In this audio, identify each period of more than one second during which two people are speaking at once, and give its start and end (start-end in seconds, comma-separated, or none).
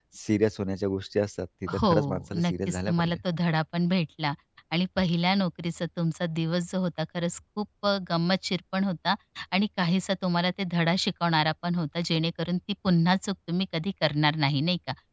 1.8-3.2